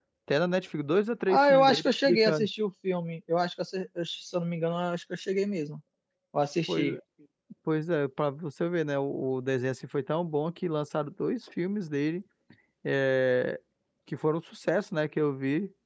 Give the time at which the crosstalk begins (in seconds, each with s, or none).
1.3 s